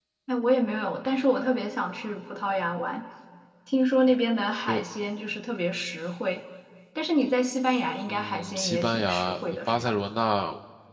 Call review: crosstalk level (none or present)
present